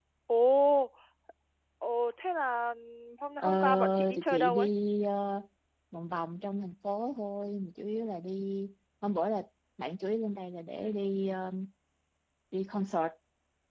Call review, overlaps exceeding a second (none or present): present